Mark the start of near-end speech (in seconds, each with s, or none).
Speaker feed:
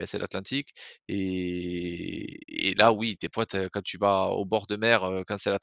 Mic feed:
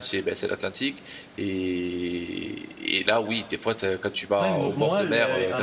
4.4 s